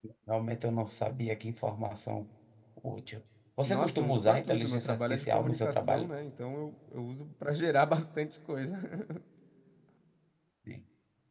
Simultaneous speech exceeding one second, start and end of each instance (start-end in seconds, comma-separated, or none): 3.7-6.1